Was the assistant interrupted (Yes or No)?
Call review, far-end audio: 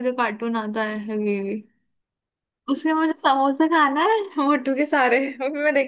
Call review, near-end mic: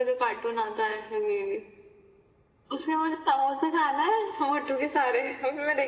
No